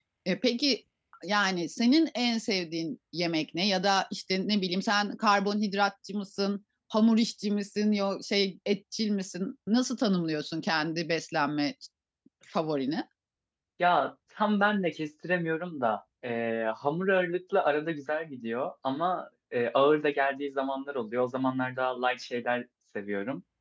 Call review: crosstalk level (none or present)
none